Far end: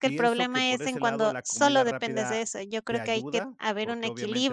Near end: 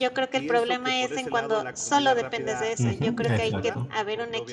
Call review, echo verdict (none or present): present